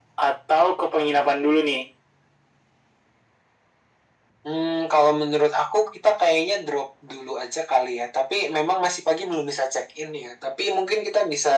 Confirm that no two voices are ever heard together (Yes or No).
Yes